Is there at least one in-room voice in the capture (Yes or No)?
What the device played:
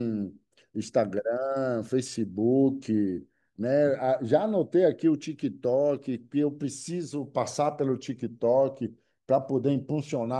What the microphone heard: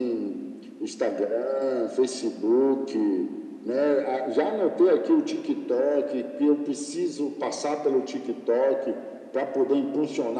No